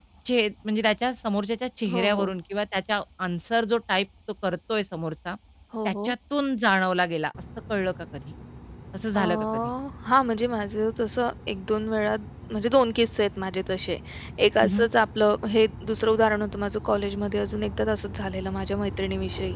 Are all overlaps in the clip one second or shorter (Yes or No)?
Yes